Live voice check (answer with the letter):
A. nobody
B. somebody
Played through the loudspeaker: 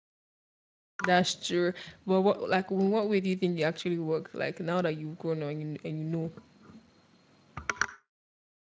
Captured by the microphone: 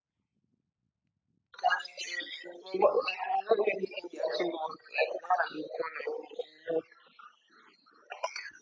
A